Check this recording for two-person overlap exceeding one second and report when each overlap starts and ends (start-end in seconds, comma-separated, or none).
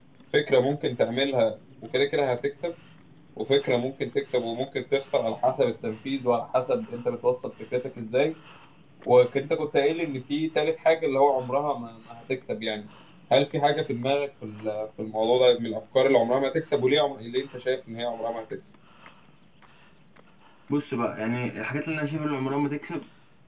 none